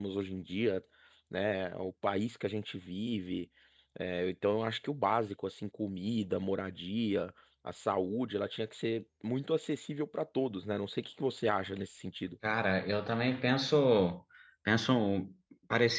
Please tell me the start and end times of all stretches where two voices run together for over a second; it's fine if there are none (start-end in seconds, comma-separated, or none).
none